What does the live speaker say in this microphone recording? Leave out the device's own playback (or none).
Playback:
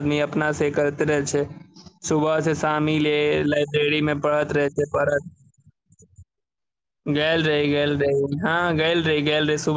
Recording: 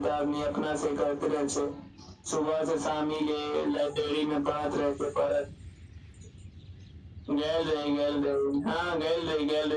none